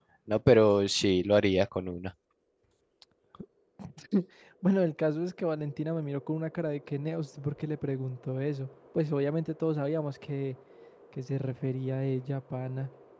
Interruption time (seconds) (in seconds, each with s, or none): none